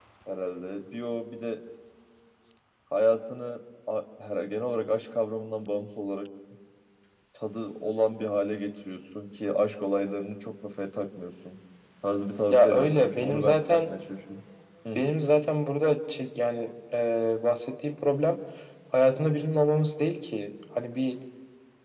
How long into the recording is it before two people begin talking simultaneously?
12.5 s

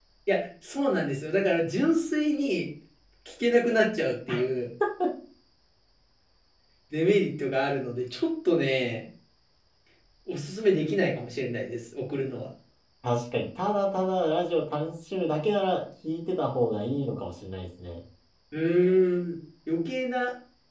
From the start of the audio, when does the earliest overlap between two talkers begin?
none

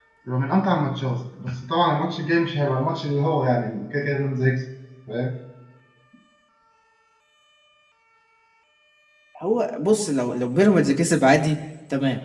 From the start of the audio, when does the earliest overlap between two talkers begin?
none

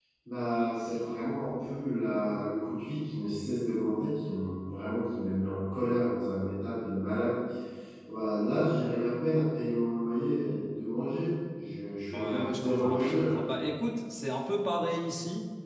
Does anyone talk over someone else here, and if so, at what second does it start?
12.1 s

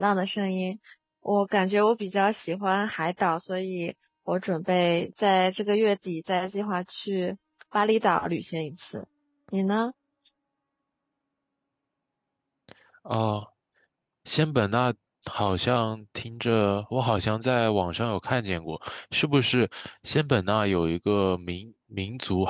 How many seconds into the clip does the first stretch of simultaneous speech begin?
none

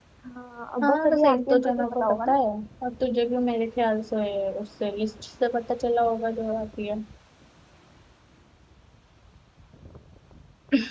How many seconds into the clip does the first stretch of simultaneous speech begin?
0.8 s

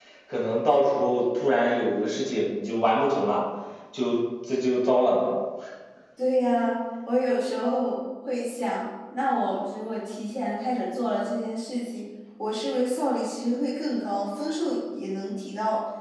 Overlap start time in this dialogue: none

